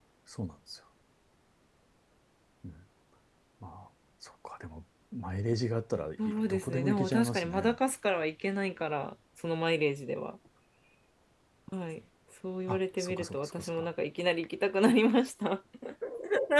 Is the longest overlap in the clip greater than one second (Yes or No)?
Yes